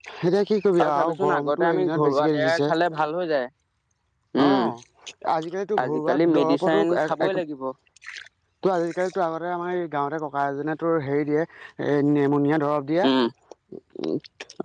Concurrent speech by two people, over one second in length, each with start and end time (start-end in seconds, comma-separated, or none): 0.9-2.6, 5.8-7.4